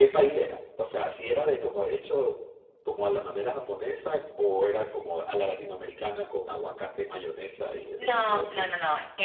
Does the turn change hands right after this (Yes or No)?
Yes